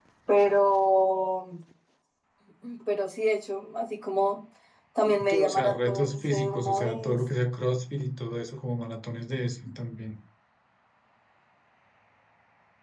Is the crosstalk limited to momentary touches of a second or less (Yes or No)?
No